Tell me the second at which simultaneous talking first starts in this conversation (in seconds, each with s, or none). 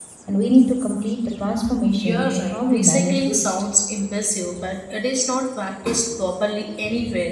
1.9 s